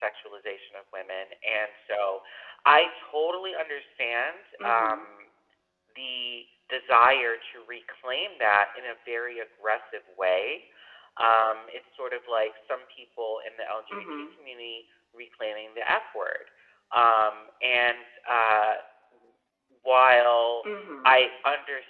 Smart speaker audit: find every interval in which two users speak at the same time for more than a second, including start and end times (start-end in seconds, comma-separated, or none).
none